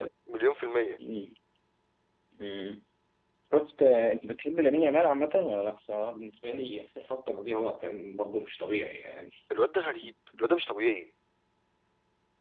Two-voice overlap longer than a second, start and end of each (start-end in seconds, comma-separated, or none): none